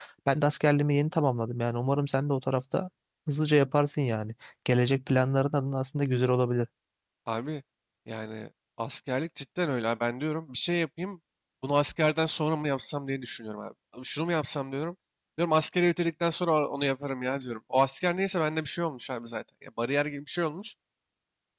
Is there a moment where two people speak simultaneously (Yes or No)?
No